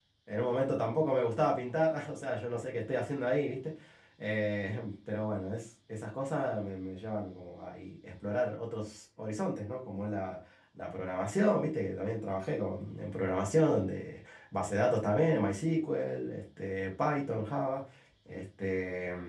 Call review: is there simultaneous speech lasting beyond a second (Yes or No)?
No